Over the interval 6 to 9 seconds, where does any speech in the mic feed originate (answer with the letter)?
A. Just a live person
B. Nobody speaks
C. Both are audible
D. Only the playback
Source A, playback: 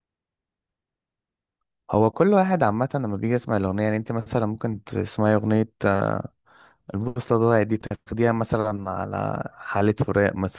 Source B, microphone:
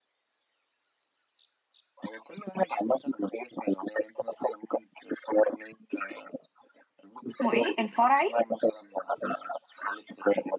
C